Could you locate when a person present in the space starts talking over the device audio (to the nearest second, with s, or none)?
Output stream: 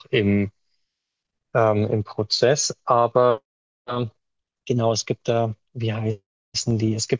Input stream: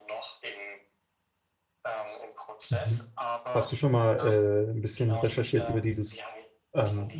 3 s